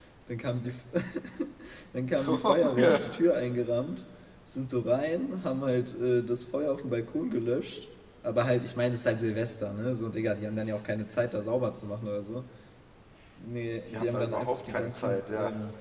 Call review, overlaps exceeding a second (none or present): present